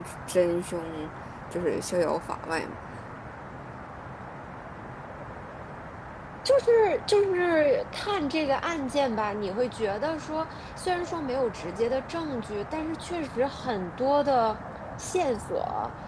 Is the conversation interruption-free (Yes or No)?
Yes